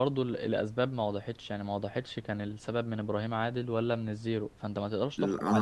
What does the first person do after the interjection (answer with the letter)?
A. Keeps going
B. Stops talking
B